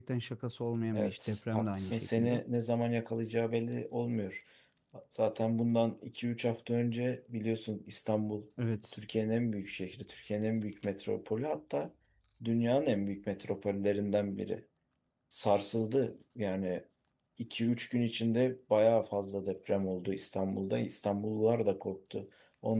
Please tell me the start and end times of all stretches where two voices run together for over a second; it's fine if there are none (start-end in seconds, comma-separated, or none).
0.9-2.4